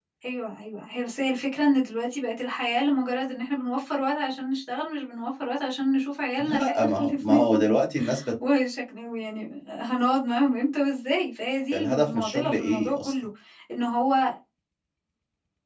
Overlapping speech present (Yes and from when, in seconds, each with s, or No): Yes, from 6.4 s